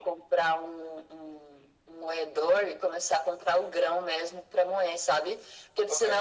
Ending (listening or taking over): listening